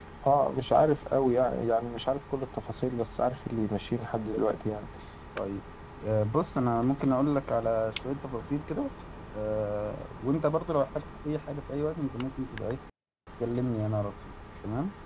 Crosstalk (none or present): none